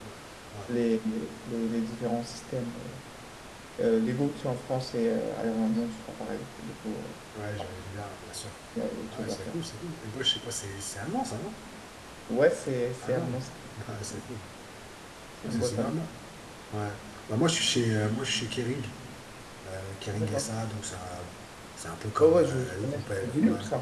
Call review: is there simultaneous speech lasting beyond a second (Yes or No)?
Yes